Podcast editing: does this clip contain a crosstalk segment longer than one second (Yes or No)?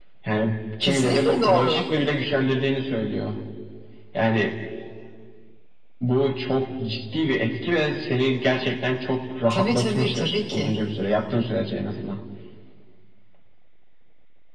Yes